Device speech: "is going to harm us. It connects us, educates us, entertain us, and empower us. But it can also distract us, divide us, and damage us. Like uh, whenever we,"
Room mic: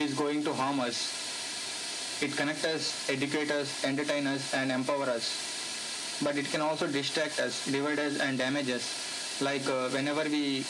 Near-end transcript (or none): none